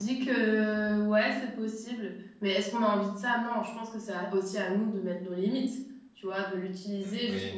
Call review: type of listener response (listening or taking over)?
listening